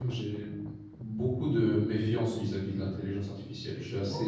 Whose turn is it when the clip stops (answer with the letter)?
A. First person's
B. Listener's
A